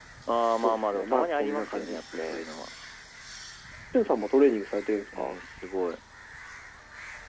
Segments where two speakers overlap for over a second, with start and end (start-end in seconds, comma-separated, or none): 0.6-2.4